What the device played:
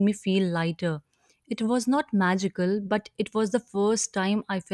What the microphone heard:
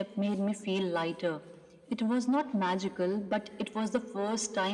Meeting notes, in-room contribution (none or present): none